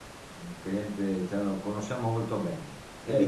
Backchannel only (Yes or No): No